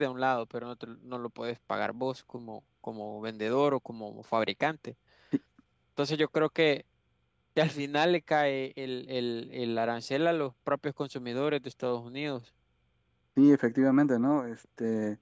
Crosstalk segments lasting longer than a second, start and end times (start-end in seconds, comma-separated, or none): none